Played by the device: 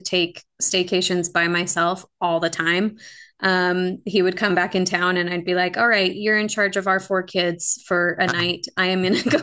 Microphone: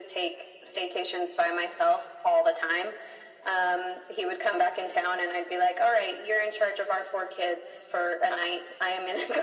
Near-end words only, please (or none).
none